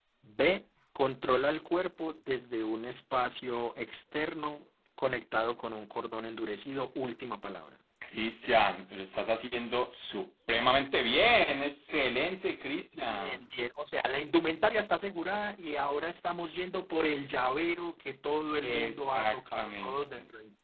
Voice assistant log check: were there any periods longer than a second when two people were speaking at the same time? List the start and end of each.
18.6-19.9

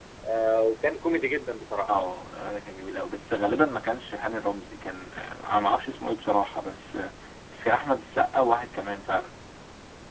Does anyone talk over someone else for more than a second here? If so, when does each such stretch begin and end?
none

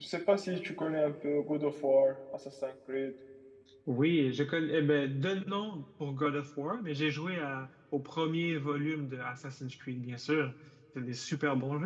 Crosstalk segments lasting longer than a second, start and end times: none

